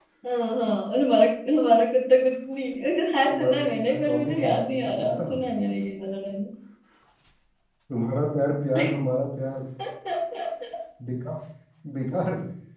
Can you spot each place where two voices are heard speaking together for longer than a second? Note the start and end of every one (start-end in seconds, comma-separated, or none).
3.3-5.2